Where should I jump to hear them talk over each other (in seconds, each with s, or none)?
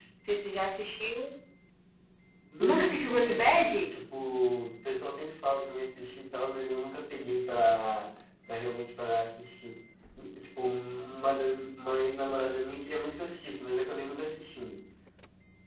2.6 s